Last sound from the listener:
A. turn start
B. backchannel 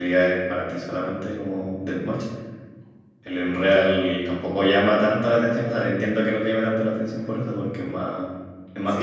A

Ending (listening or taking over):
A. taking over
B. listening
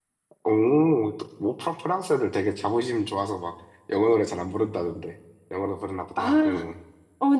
A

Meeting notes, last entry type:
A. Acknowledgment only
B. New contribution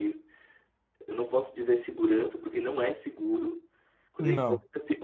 A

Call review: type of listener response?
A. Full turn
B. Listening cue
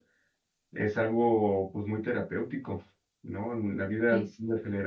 B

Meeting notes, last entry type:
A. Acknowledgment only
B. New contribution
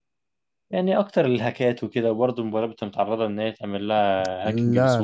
B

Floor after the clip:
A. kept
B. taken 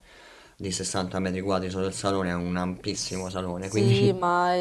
B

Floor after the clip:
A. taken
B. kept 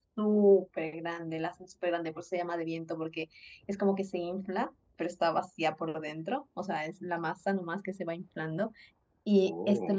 B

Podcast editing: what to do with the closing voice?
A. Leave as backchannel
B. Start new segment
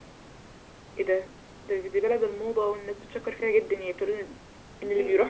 B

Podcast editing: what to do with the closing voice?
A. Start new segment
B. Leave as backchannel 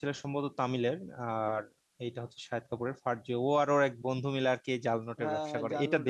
A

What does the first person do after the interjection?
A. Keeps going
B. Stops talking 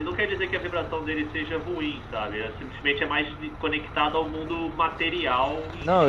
B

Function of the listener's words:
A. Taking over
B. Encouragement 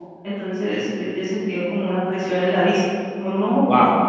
A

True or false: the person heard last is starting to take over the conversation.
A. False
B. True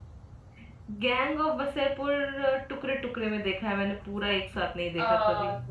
B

